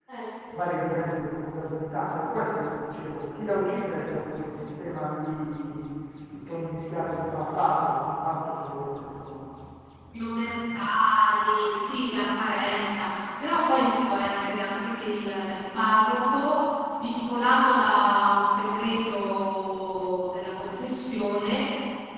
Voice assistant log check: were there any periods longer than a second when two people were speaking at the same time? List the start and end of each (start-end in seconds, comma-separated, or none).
none